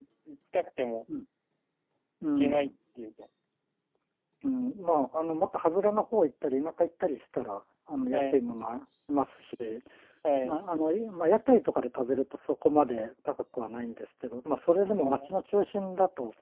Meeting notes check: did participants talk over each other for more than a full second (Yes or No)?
No